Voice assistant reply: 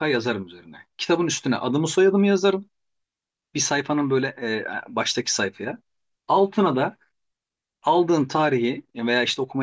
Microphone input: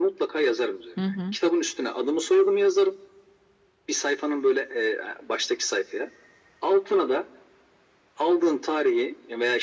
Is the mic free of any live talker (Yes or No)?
No